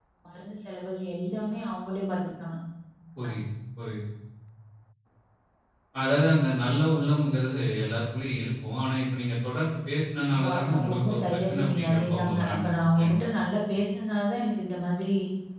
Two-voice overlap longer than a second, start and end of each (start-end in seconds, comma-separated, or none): 10.3-13.3